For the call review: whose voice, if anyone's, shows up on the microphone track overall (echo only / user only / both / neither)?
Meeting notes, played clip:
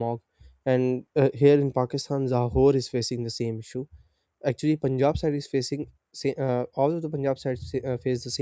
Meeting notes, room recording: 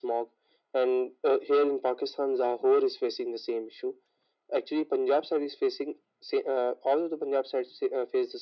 echo only